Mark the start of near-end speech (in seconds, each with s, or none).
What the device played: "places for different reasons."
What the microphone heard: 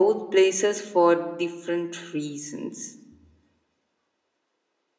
none